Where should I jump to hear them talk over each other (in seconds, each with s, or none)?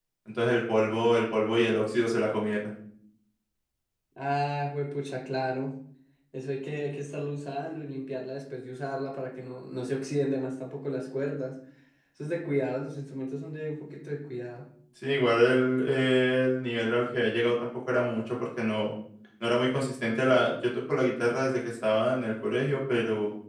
none